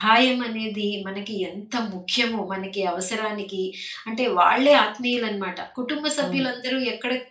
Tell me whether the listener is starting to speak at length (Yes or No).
No